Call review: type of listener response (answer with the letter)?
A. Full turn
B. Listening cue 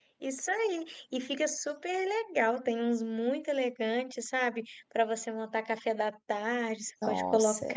B